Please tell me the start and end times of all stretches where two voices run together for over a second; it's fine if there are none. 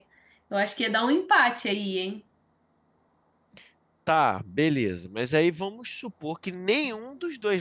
none

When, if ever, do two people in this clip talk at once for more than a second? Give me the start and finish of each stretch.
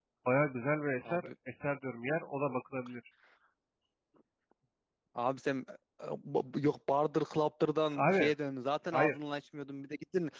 none

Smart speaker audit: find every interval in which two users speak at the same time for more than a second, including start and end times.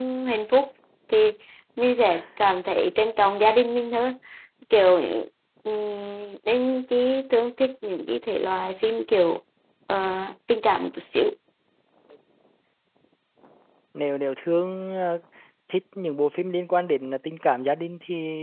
none

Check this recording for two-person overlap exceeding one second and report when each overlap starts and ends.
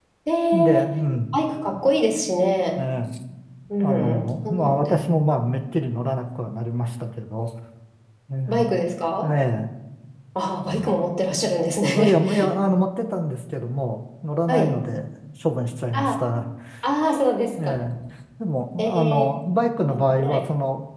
3.8-5.0

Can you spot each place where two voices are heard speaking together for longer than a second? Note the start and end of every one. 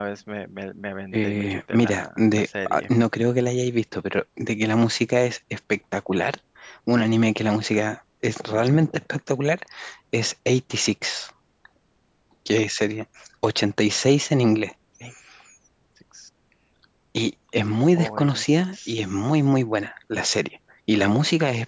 1.1-2.9, 17.9-19.2

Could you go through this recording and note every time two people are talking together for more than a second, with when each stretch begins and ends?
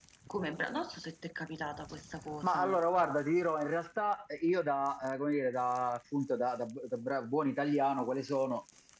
none

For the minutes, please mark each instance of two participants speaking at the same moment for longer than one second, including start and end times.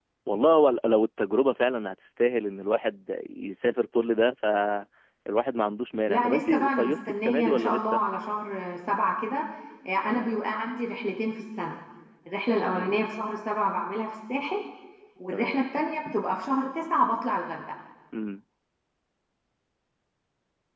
6.1-8.0

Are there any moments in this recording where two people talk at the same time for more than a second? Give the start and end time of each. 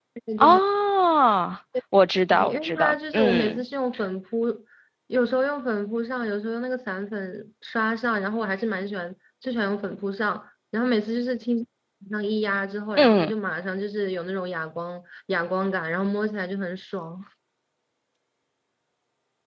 2.3-3.6

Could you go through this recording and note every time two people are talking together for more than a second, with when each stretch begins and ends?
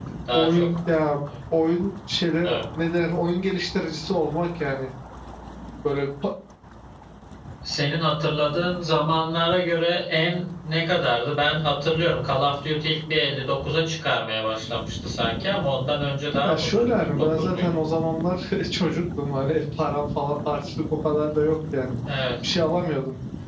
16.4-17.8

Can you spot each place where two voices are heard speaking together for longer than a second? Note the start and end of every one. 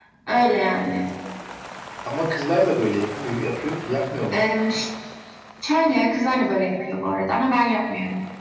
none

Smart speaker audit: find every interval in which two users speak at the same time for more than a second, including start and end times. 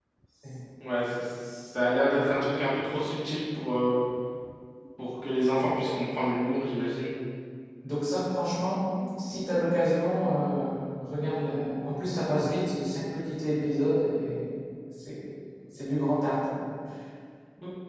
none

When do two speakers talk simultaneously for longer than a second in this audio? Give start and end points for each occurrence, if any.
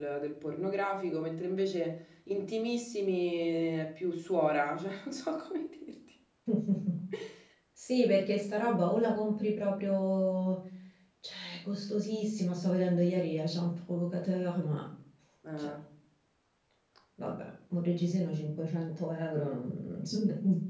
none

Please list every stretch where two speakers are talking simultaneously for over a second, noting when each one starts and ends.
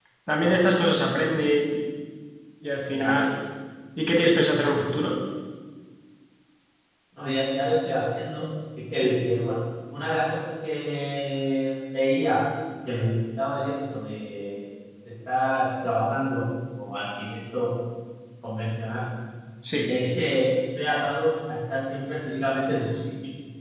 none

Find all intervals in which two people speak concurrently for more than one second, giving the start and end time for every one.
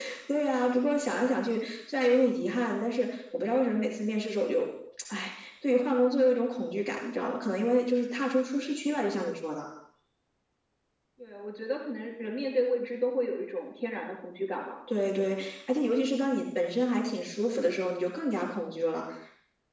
none

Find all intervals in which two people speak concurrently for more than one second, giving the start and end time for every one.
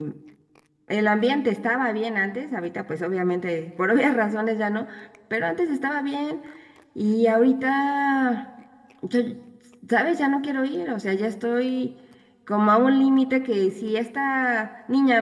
none

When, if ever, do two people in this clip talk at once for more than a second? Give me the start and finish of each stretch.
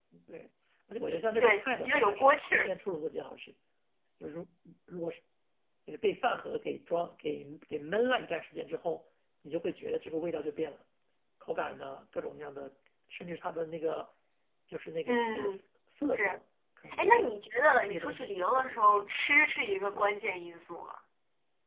1.4-2.7, 17.8-19.1

